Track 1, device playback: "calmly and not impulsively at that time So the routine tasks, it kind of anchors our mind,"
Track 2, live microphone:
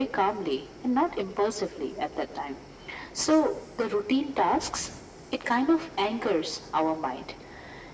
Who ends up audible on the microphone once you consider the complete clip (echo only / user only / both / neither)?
echo only